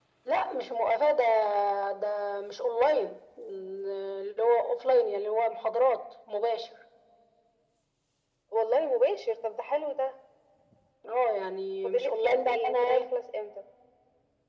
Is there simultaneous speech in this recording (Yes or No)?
Yes